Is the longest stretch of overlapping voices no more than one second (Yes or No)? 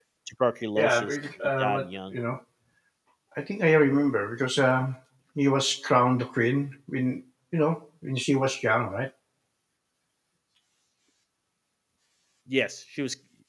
No